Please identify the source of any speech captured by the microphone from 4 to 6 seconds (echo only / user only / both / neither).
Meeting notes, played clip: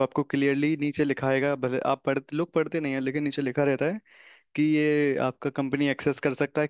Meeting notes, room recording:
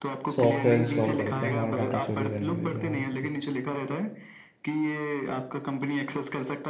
echo only